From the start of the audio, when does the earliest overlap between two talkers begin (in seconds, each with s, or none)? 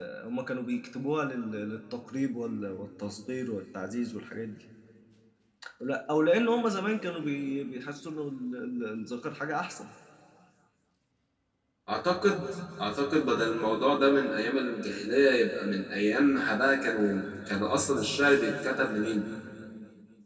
none